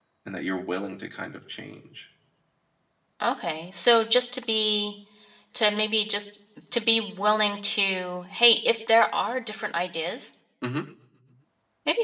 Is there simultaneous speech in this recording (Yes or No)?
No